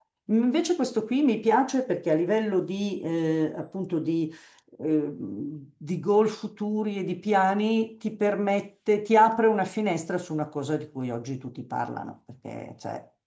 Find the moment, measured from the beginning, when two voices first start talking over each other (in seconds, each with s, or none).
none